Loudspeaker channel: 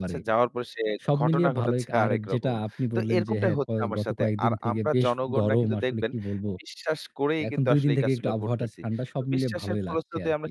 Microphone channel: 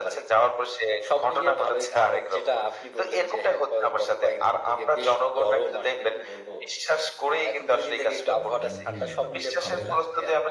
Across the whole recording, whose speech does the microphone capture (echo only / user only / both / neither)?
both